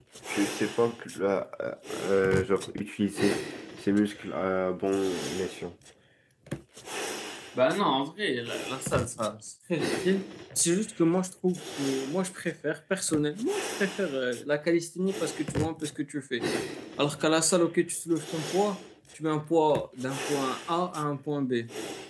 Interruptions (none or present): none